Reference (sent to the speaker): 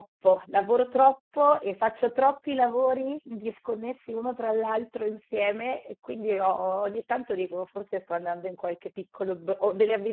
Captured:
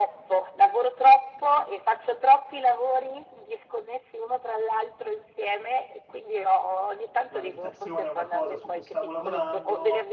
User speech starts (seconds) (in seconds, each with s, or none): 7.3 s